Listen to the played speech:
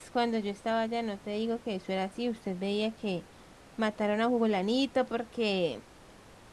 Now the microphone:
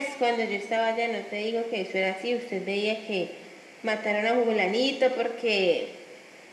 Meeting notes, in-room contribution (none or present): none